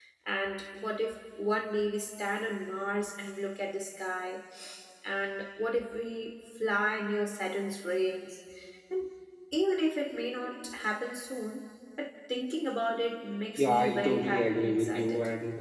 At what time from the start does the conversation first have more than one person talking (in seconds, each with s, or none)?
13.6 s